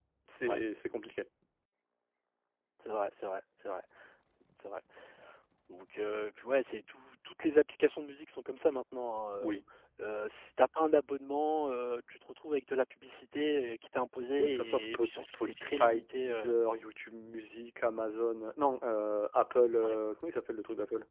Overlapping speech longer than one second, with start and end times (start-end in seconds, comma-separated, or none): 14.4-16.5